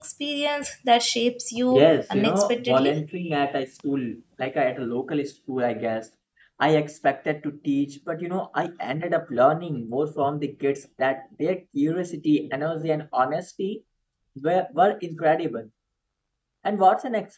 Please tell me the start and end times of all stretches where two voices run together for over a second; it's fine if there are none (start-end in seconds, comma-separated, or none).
1.7-3.0